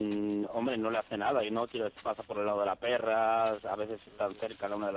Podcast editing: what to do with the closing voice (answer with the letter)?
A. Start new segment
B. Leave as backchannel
A